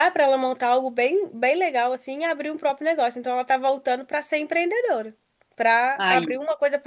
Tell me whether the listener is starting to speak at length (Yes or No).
No